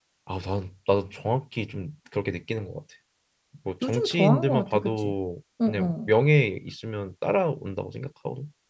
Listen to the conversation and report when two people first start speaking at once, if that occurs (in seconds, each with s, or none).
3.8 s